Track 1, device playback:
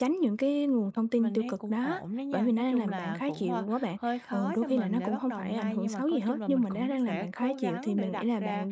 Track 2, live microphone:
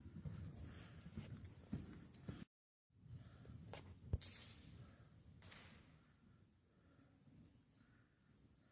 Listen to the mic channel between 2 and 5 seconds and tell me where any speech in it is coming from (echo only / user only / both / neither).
neither